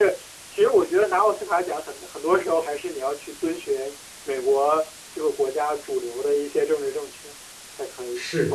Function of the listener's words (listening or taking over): listening